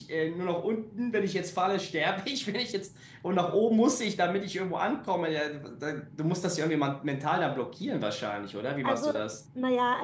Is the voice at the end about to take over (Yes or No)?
Yes